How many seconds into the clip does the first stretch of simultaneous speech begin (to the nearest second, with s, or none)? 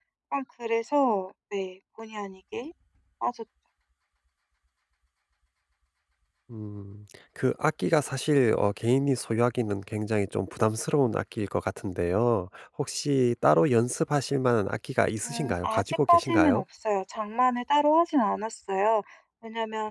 15 s